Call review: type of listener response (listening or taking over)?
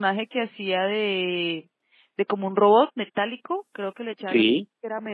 listening